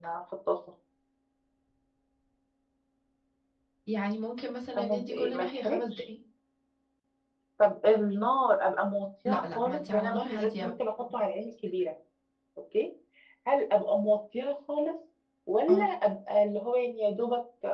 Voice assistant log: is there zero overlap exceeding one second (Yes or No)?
No